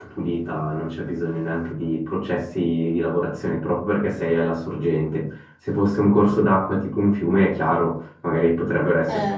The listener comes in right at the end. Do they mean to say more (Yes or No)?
No